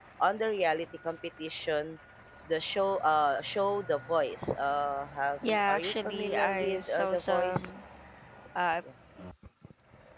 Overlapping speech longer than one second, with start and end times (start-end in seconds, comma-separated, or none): 5.5-7.7